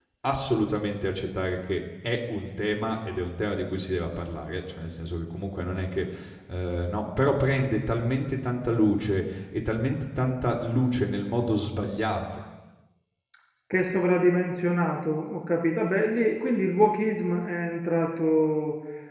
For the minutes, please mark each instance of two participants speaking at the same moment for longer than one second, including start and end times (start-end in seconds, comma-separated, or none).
none